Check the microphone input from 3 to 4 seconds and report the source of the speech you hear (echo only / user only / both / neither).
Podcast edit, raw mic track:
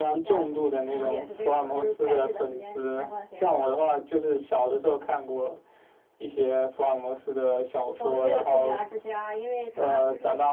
both